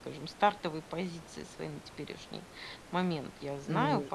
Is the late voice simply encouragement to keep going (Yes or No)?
Yes